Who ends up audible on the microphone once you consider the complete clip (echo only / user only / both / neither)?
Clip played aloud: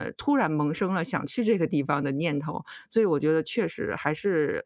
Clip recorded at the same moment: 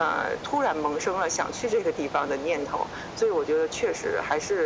echo only